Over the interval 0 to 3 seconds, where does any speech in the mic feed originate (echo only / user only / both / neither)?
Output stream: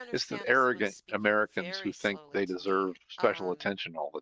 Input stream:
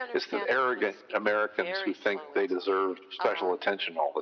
echo only